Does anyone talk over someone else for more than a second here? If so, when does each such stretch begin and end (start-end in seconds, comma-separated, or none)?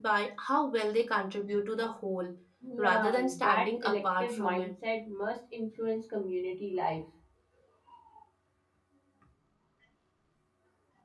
2.8-4.7